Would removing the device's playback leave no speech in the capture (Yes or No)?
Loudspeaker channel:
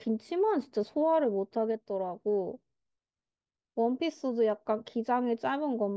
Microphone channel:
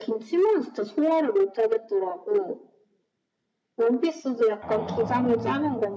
No